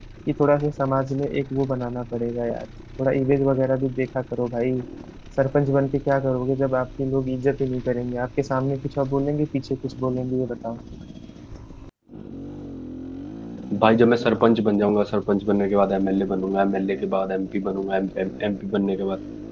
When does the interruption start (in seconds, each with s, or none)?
none